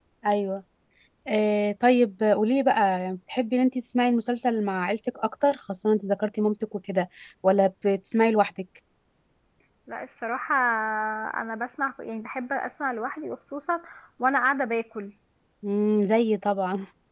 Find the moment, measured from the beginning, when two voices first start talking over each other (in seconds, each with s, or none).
none